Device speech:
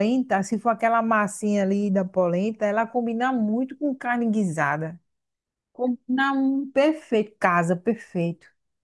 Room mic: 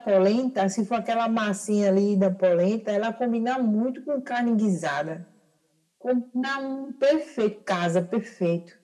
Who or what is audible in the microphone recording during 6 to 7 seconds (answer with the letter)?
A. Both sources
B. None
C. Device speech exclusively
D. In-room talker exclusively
C